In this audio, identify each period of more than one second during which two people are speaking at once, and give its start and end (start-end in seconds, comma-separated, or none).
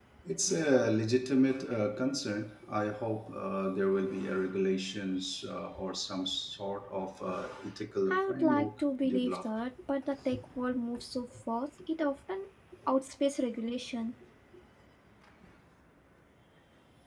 8.1-9.5